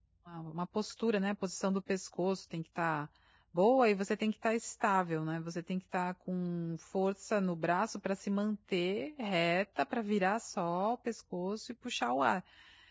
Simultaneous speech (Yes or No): No